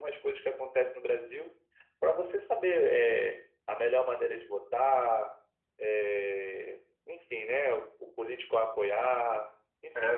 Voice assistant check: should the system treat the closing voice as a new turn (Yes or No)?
Yes